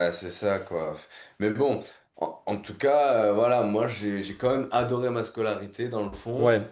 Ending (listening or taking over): listening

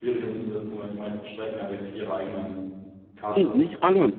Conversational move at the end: taking over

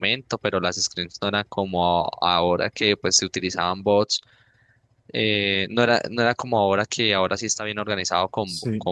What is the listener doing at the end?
listening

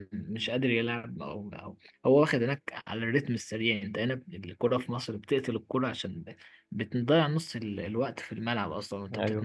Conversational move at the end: taking over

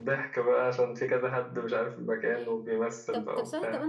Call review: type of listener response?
taking over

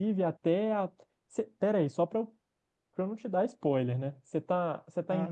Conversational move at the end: taking over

